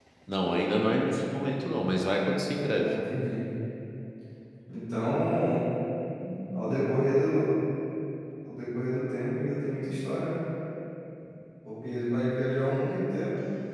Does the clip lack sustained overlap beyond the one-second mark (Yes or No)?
Yes